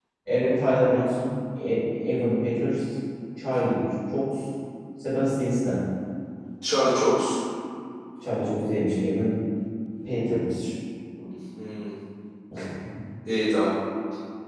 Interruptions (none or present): none